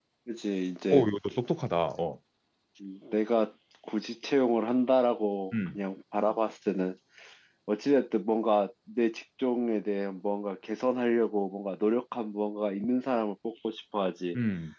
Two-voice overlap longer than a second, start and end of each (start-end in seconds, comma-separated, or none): none